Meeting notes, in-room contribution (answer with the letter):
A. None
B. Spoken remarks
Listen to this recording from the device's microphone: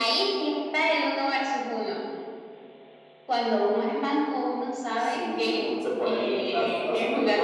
A